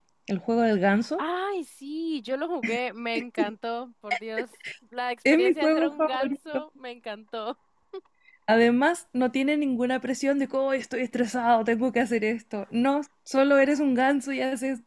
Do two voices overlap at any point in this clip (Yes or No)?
Yes